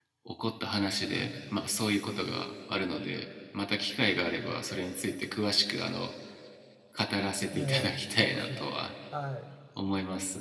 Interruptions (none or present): present